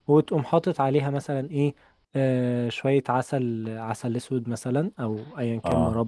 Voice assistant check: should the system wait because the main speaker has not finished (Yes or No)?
Yes